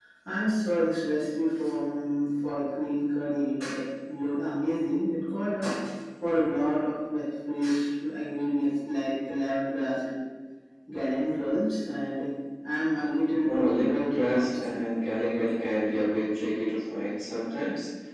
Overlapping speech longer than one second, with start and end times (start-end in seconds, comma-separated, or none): 13.5-14.8